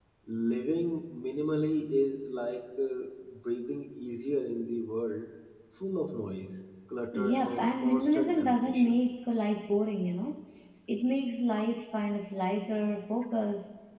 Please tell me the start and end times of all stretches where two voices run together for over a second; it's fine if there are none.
7.1-9.0

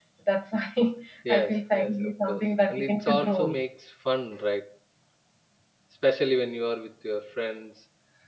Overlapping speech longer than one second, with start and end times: 1.3-3.6

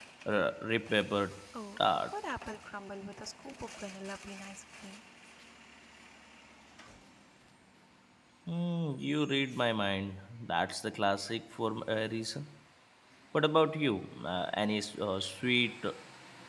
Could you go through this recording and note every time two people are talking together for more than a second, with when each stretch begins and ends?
none

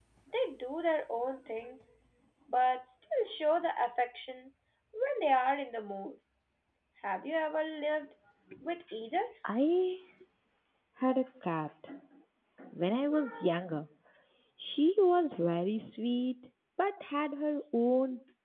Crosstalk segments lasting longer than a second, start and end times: none

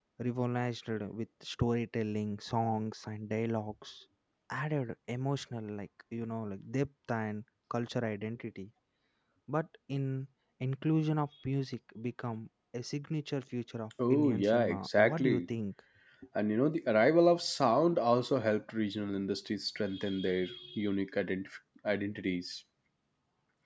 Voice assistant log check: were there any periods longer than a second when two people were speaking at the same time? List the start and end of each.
14.1-15.4

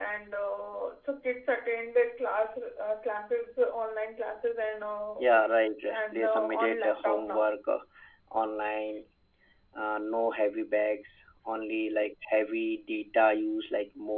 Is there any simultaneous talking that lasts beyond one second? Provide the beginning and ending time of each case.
6.1-7.5

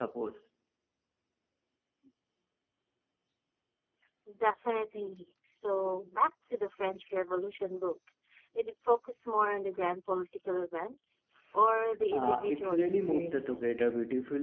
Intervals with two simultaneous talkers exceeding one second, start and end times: 12.1-13.8

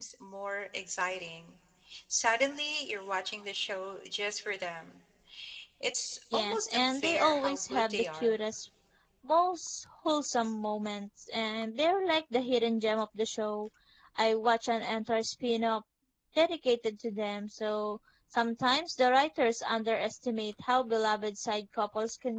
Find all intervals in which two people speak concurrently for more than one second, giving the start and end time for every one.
6.3-8.3

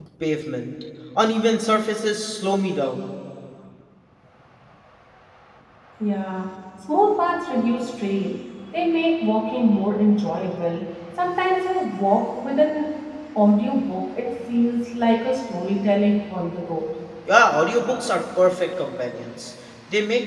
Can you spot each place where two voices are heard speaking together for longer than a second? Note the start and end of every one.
none

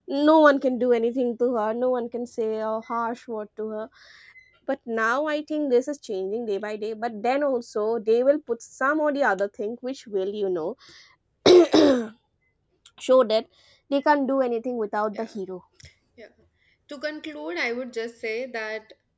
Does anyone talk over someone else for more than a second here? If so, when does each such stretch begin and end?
none

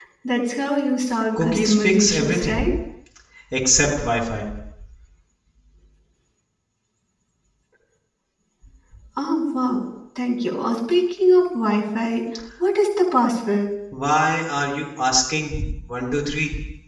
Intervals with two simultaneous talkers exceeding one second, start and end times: 1.4-2.7

